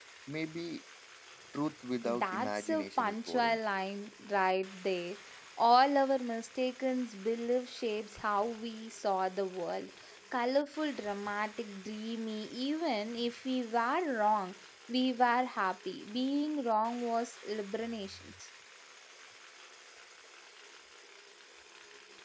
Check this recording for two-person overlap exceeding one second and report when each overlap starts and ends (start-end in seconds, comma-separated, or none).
2.0-3.6